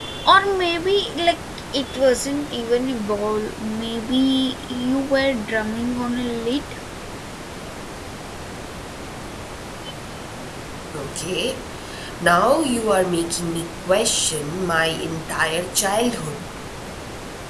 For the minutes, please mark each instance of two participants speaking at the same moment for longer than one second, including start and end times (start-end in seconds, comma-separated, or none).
none